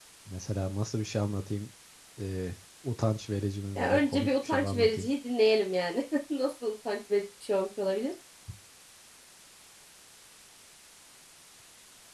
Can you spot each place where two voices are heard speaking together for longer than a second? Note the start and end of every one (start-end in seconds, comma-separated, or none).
3.8-5.1